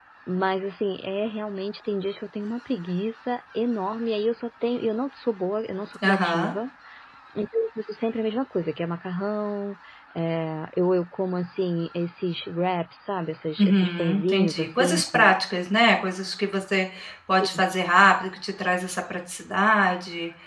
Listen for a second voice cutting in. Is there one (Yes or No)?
Yes